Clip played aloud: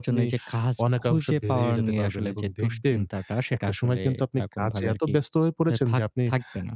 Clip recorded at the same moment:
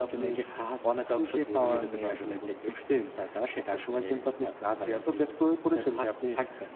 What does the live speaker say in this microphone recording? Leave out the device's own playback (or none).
none